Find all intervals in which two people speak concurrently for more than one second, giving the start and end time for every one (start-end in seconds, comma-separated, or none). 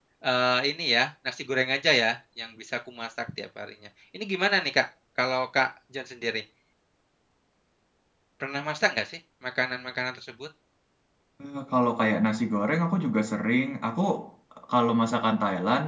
none